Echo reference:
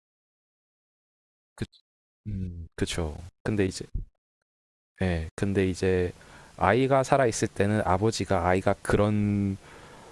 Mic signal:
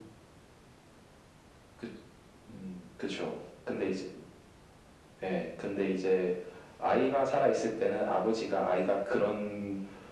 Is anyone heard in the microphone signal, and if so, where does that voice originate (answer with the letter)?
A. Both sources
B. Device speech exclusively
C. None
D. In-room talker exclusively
B